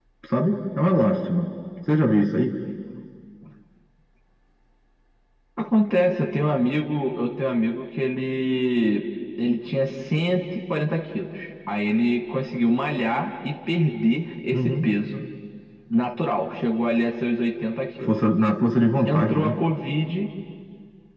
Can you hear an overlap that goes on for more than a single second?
No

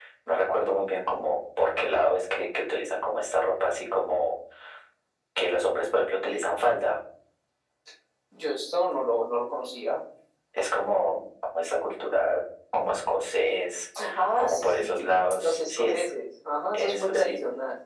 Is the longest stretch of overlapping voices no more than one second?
No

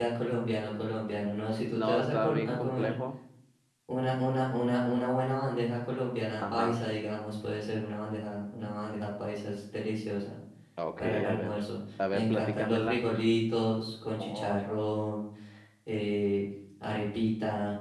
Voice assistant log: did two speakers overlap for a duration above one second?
Yes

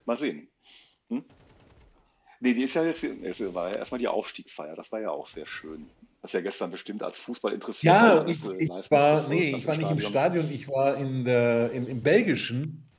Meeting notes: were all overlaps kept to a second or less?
No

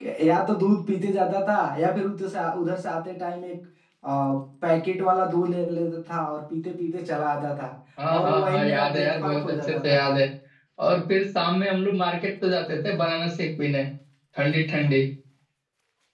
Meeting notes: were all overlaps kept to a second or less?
No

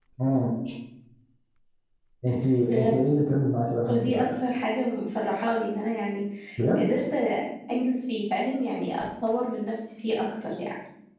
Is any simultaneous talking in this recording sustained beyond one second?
No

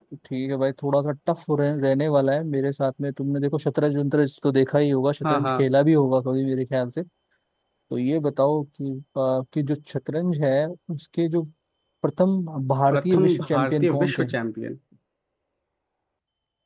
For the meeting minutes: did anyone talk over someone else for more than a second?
Yes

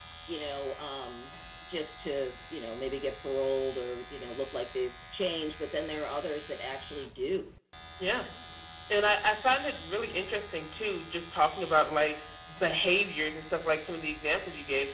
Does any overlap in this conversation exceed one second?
No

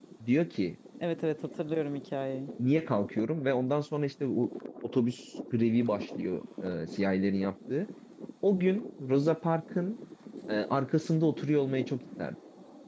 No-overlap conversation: Yes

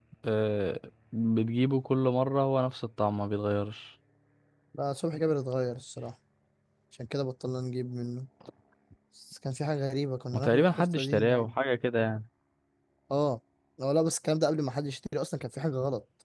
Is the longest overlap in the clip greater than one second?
Yes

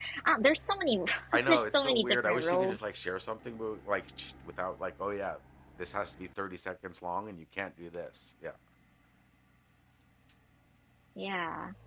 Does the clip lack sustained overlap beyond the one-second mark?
No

